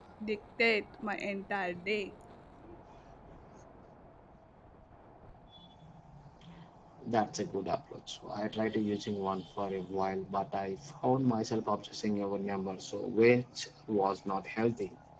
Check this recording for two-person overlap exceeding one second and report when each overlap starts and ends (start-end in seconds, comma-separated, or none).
none